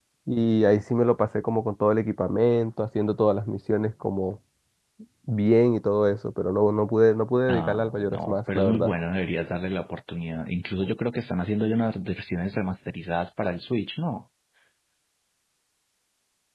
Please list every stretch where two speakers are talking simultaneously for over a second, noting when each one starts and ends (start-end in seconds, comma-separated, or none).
7.5-8.9